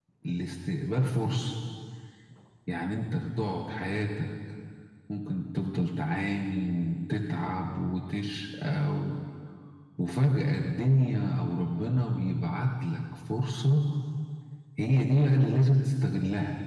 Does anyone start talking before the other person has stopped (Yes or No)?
No